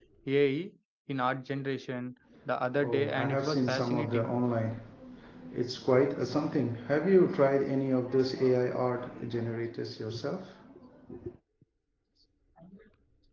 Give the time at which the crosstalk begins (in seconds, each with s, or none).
2.8 s